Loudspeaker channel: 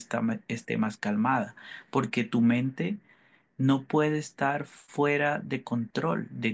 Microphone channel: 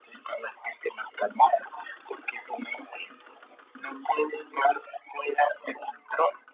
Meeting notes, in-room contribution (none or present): none